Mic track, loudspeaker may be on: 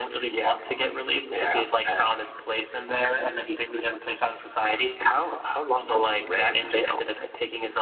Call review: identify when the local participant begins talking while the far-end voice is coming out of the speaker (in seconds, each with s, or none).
none